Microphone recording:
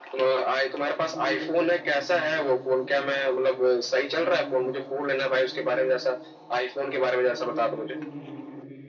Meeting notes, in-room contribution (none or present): present